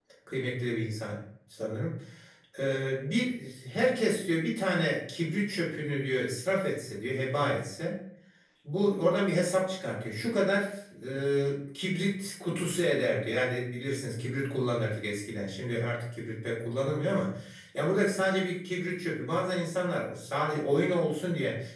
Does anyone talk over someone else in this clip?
No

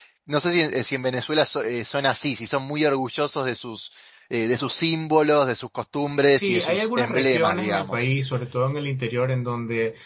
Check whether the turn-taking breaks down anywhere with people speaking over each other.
Yes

